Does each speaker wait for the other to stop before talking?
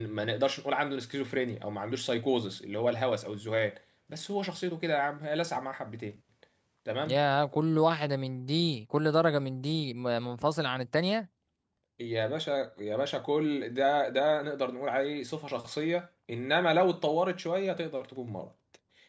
Yes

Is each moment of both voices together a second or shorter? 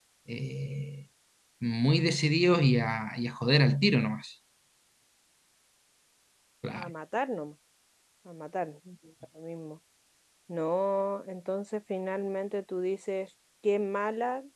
Yes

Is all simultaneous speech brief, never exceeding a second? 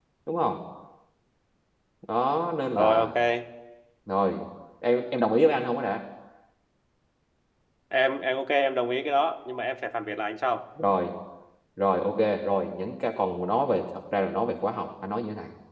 Yes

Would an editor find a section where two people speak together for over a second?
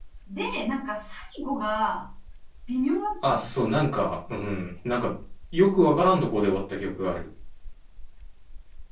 No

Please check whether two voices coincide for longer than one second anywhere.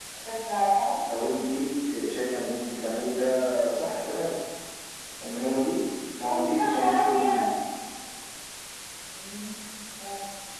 Yes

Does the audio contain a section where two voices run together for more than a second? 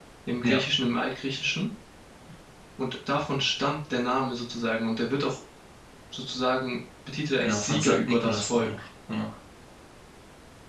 Yes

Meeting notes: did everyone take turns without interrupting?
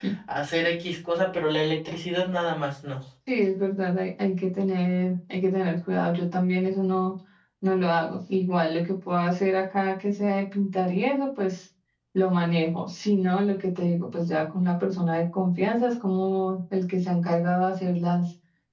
Yes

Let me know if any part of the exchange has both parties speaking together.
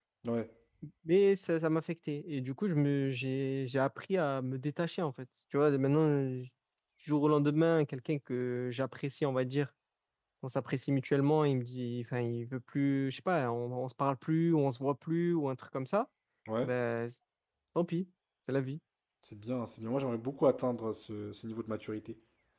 No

